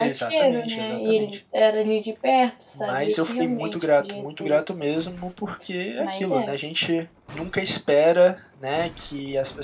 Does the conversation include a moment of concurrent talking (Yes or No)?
Yes